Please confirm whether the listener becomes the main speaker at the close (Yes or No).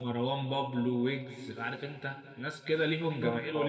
No